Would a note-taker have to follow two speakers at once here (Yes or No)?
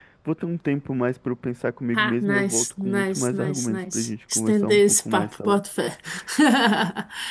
Yes